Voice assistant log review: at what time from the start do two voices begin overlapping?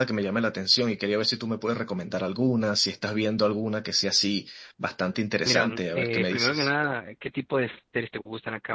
5.5 s

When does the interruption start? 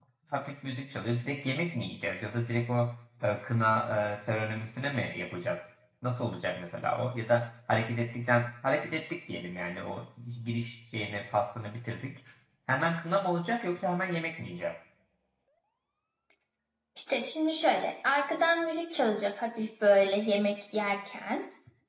none

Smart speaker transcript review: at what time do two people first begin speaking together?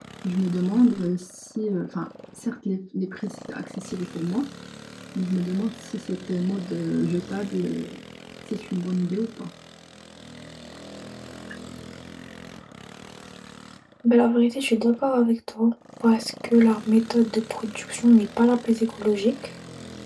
none

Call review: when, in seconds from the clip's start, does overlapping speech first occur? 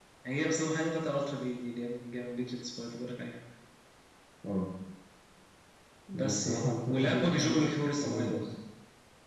6.2 s

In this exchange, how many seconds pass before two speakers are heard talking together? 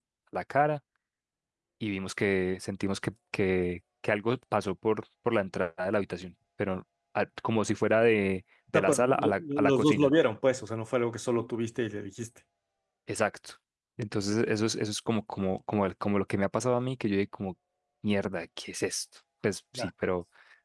8.7 s

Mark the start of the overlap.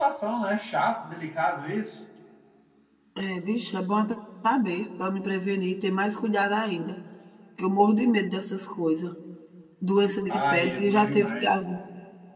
10.3 s

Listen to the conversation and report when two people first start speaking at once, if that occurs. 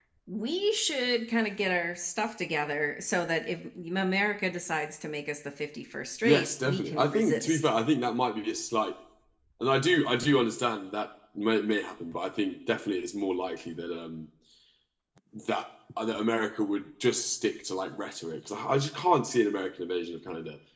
6.2 s

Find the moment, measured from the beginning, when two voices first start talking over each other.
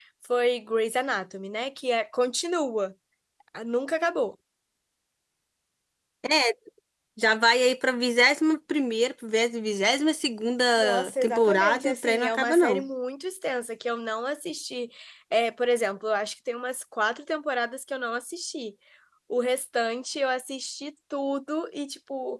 10.8 s

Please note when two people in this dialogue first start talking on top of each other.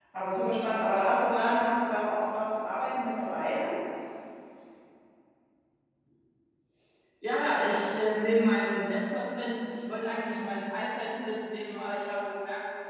none

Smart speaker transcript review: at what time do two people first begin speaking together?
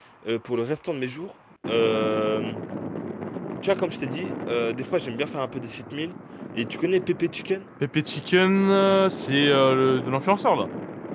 none

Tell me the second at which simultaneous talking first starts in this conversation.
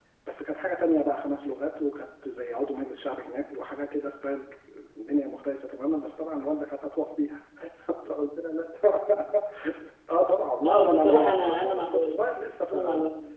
10.6 s

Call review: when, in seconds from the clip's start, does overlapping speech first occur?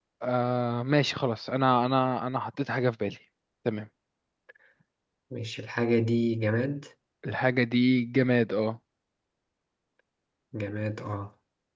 none

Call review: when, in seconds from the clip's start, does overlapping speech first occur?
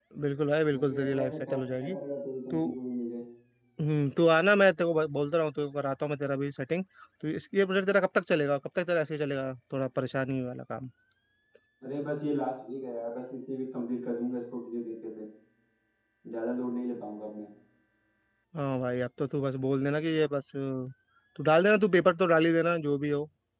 0.7 s

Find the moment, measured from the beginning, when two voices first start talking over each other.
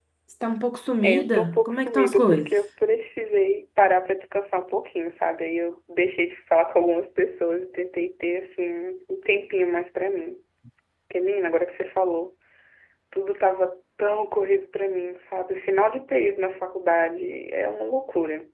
1.1 s

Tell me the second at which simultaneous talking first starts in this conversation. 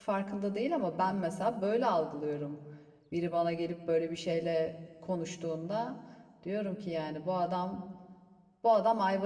none

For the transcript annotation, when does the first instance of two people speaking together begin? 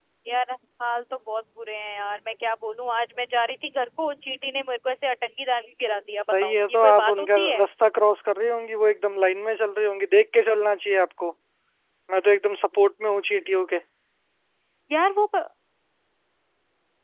6.1 s

